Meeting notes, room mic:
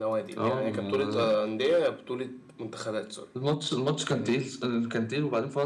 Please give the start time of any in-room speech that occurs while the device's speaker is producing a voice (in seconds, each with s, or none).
none